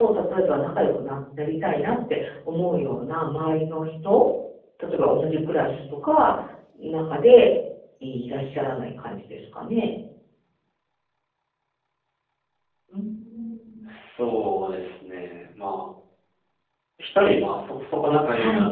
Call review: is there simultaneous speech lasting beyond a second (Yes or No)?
No